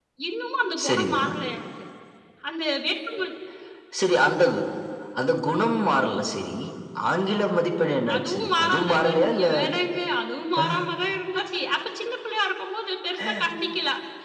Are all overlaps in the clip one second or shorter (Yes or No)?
No